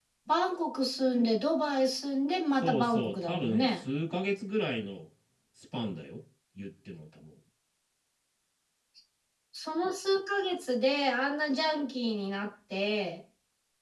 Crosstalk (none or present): present